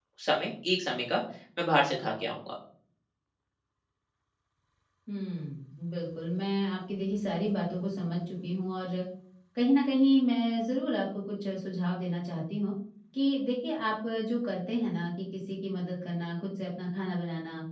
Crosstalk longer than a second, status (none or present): none